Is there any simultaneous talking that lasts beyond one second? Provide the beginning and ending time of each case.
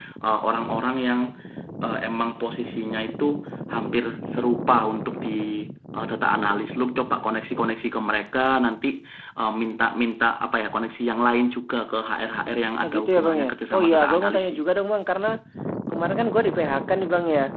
12.8-14.6

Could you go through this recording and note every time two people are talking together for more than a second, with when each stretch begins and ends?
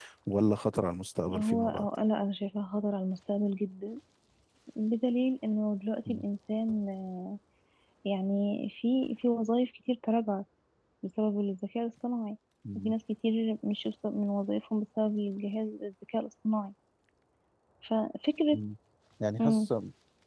none

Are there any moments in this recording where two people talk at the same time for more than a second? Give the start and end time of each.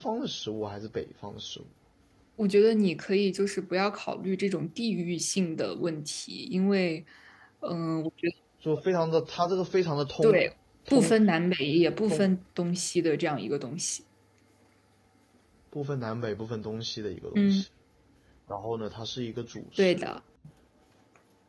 none

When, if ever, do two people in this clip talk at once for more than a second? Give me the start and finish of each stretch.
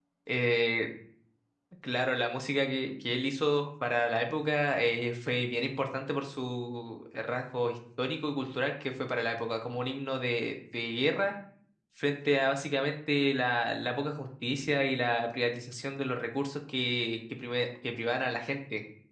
none

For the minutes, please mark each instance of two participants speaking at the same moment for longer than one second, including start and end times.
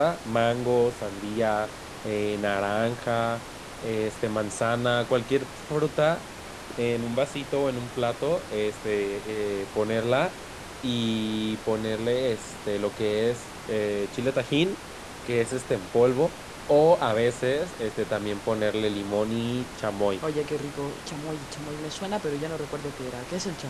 none

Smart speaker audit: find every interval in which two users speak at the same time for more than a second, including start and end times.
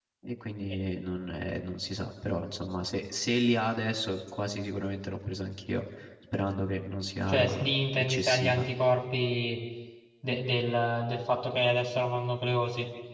7.3-8.7

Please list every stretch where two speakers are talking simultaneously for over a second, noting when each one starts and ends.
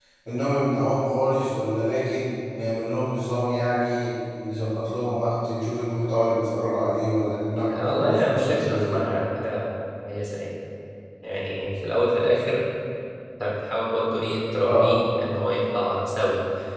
7.7-9.0

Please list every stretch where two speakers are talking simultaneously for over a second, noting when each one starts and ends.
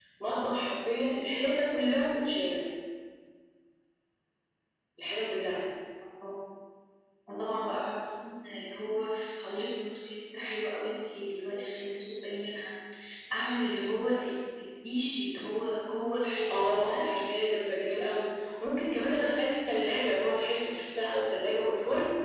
none

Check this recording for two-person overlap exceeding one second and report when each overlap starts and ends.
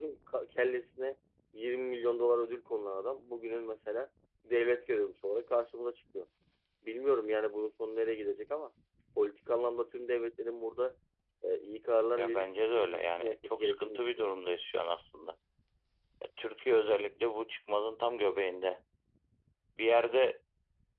12.2-14.3

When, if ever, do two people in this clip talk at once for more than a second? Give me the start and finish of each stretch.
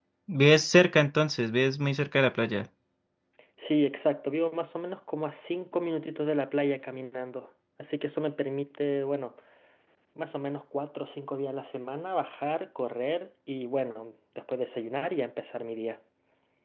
none

